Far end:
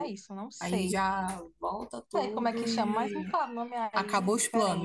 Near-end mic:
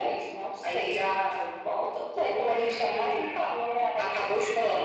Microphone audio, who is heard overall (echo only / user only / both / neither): echo only